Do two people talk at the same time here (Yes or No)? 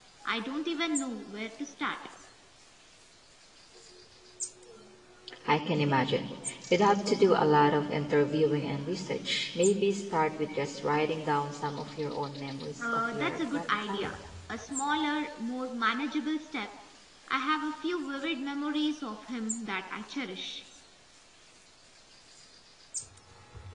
Yes